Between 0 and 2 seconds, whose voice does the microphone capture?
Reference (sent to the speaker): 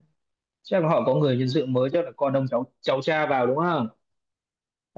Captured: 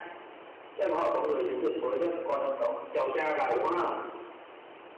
echo only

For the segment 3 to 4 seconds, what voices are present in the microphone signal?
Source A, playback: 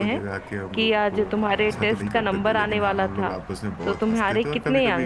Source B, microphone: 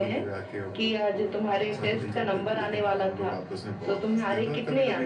echo only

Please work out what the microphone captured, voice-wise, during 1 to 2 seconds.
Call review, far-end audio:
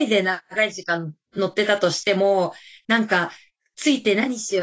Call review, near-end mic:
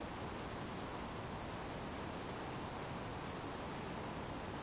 neither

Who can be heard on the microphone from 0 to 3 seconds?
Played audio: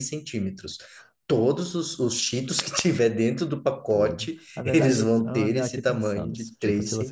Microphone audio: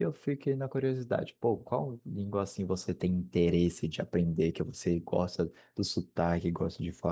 user only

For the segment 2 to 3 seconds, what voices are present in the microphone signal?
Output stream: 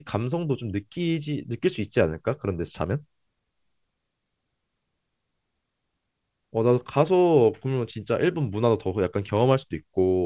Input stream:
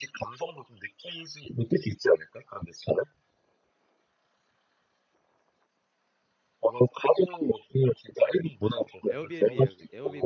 echo only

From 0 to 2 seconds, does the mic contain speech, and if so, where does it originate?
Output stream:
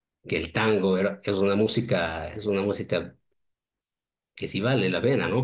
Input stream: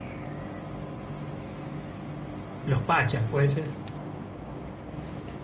neither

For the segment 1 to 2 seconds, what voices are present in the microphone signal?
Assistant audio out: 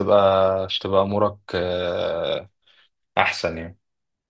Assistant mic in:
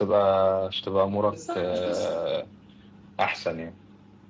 both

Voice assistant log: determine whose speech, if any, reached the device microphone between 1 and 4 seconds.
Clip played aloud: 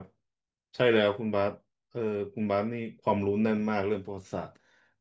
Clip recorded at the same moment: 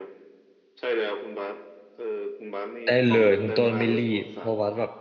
both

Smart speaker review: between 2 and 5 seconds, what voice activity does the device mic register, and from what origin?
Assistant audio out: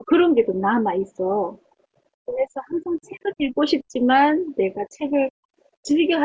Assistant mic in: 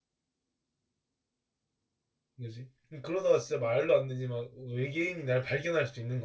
user only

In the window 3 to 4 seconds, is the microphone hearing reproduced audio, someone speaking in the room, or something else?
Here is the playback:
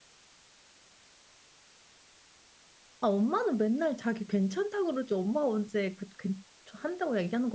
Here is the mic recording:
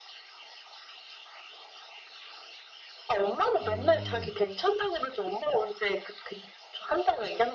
both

